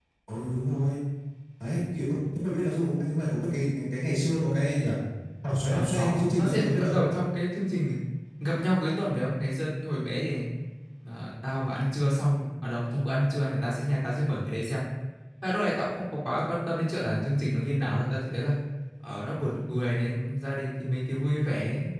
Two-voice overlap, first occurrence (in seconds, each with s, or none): 5.7 s